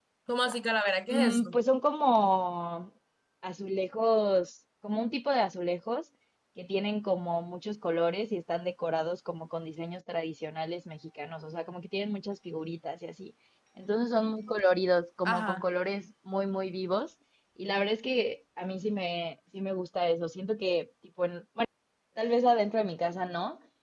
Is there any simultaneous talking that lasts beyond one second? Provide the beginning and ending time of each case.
none

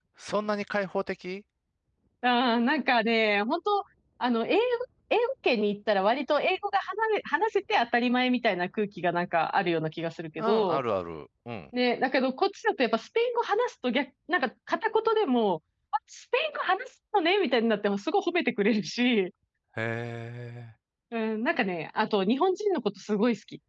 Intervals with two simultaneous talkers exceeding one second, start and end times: none

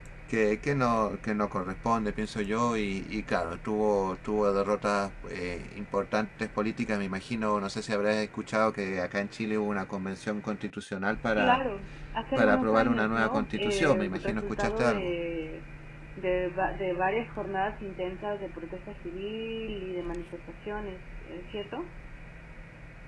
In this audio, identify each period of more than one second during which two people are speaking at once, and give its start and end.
12.4-15.1

